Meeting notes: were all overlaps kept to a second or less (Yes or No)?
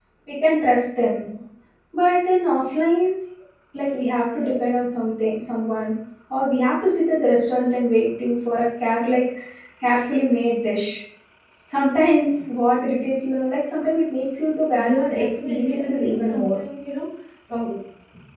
No